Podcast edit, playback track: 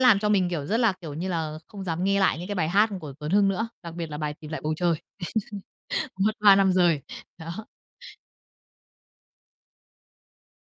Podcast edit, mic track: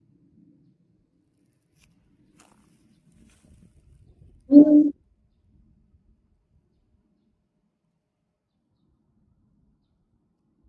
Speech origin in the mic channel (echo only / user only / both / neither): user only